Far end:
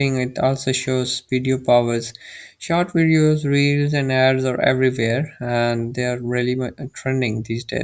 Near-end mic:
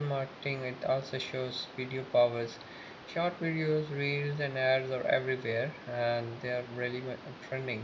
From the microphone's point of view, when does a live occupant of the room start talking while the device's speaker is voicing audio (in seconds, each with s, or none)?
none